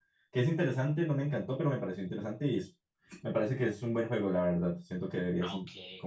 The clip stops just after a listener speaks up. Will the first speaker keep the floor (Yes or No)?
No